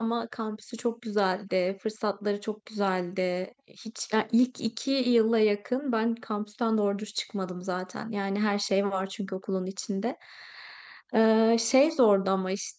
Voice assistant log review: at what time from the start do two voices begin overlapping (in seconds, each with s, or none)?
none